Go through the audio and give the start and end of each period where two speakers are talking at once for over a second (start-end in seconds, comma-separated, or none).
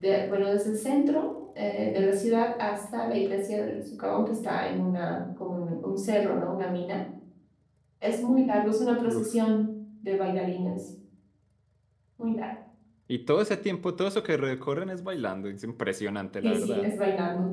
none